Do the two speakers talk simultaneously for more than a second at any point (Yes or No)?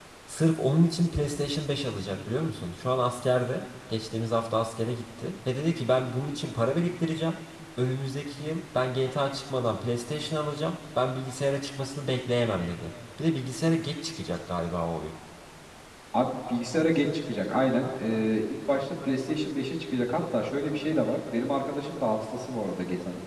No